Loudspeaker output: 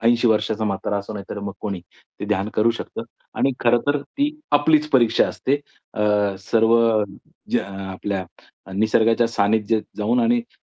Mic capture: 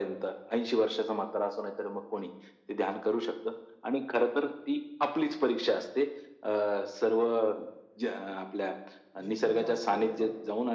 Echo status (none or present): present